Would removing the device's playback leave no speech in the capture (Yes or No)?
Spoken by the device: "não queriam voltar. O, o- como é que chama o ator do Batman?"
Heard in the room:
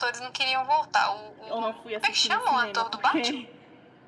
No